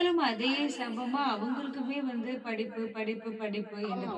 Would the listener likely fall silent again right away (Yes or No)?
Yes